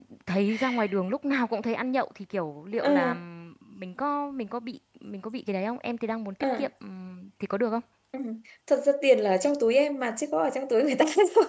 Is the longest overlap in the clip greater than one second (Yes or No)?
No